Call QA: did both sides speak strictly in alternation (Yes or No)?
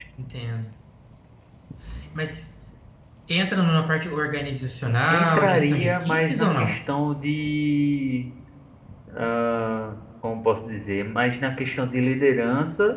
No